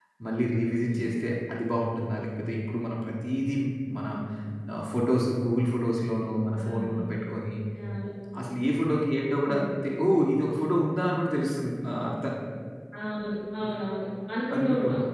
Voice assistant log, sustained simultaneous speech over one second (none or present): none